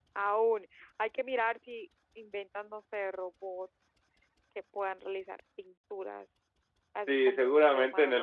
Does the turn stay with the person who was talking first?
No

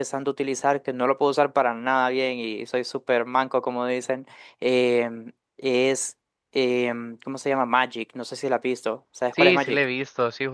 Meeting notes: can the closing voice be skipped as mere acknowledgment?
No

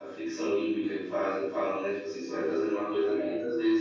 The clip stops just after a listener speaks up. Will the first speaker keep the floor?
Yes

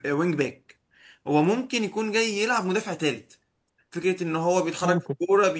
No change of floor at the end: Yes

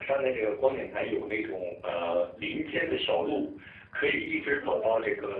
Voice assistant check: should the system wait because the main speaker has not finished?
Yes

